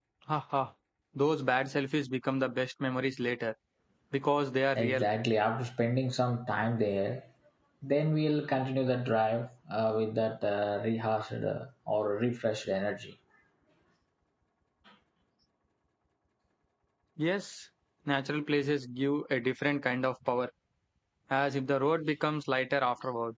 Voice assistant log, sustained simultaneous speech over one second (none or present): none